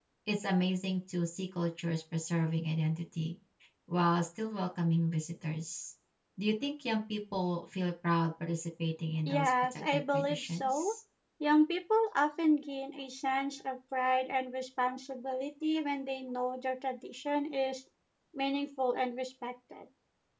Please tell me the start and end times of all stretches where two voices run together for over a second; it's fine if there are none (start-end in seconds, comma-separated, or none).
9.3-10.9